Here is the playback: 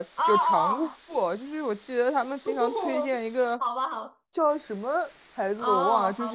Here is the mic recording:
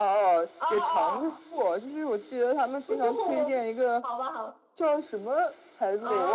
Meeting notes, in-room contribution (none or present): none